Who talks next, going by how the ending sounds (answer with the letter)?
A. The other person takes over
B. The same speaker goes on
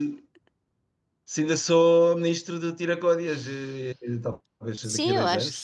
A